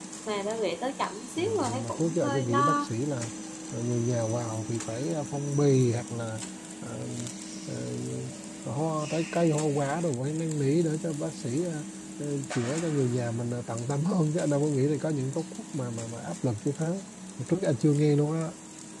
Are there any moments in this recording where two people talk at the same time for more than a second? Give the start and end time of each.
1.4-2.9

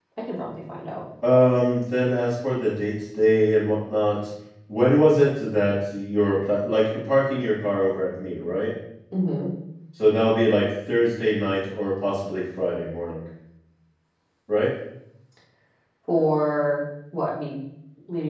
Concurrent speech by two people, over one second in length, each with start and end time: none

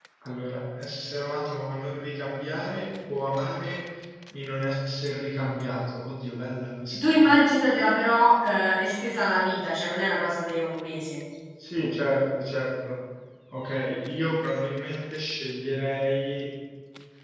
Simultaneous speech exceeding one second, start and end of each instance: none

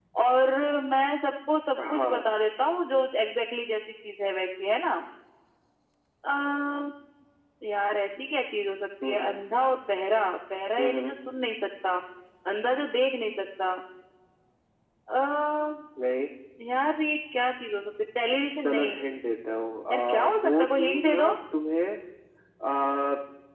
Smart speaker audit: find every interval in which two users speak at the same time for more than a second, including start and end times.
19.9-21.3

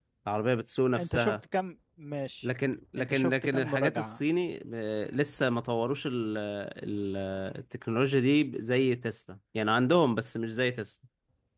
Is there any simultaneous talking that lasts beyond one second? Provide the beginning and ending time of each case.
3.0-4.2

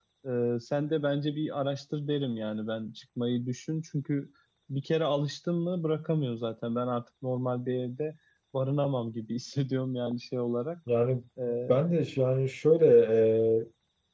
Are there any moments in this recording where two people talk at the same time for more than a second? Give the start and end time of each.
none

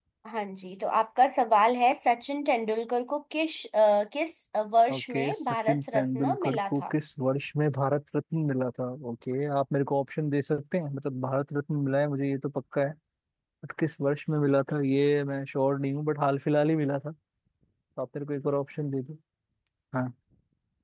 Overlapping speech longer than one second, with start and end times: 4.9-6.8

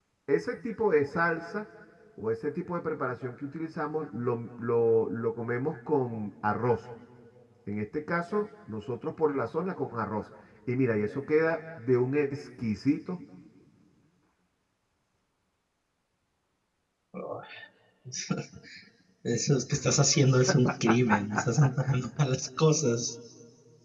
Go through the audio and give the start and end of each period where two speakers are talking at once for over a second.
none

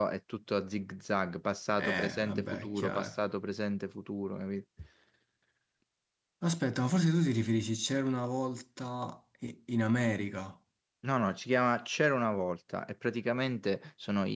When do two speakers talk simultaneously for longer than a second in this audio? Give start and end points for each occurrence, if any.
1.8-3.2

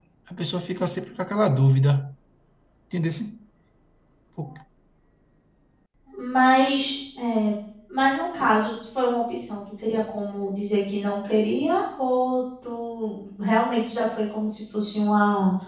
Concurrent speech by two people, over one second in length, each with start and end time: none

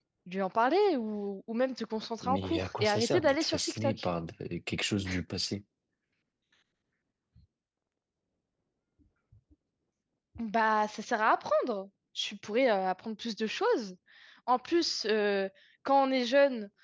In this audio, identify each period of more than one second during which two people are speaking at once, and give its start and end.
2.2-4.1

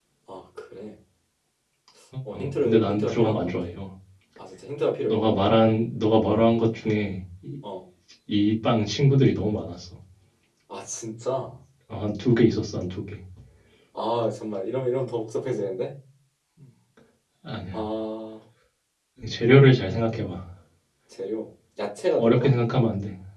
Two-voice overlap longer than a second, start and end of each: 2.3-3.8

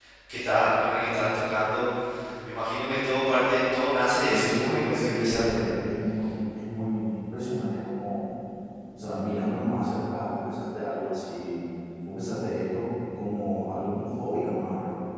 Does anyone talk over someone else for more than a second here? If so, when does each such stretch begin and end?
4.3-5.7

